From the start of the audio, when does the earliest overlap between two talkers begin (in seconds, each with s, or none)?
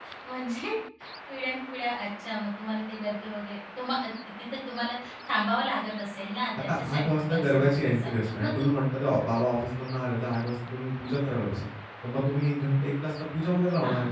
6.5 s